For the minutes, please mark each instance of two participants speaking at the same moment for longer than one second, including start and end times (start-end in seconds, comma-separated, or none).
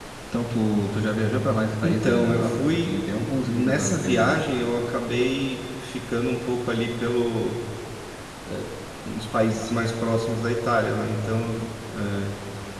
1.8-4.4